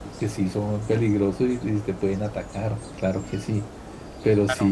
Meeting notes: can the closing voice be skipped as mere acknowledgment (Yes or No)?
Yes